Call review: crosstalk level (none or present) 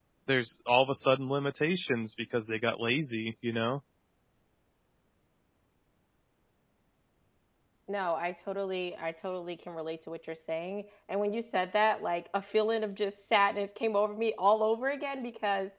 none